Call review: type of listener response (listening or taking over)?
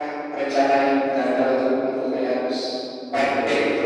taking over